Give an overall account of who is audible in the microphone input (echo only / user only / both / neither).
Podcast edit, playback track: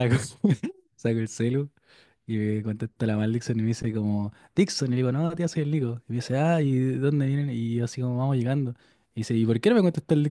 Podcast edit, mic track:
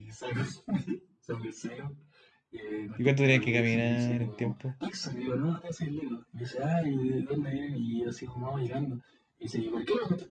both